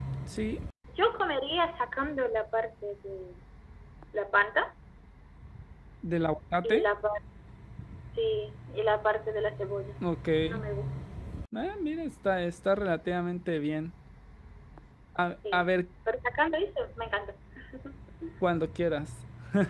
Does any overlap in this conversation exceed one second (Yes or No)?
No